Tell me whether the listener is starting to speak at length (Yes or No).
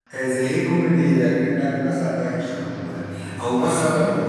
No